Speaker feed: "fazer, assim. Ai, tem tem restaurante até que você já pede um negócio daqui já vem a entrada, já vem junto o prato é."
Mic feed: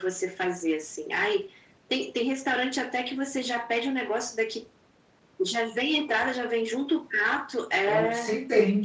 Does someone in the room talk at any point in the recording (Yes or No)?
Yes